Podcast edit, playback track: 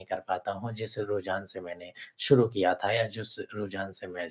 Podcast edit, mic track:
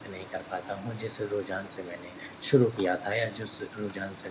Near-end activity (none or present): none